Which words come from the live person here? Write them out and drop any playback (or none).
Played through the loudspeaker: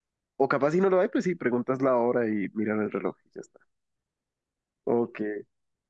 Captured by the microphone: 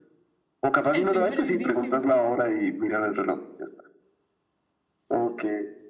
Estoy perdidísima.